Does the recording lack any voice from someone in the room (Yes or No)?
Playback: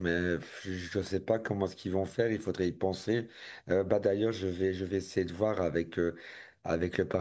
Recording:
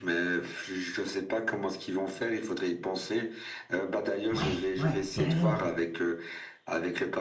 No